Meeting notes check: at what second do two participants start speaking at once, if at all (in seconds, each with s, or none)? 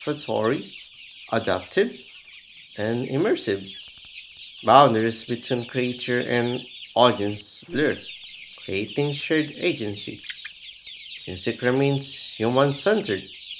none